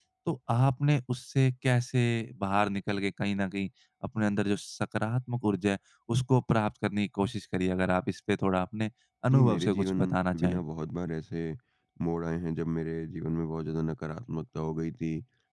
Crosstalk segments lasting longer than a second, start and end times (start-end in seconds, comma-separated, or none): 9.3-10.6